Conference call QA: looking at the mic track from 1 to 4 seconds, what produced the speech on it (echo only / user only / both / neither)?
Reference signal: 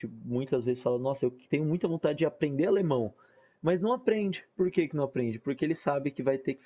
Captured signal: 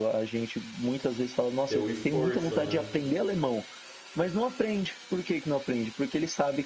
both